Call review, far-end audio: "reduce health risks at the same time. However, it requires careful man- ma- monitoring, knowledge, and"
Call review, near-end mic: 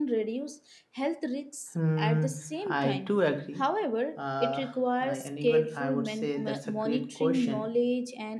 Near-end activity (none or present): present